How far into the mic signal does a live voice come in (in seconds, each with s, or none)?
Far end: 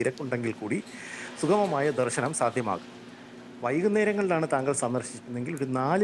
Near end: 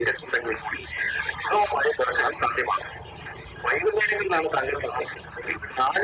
none